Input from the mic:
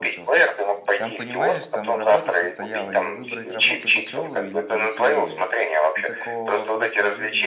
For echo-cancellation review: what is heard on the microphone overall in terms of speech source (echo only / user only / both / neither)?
both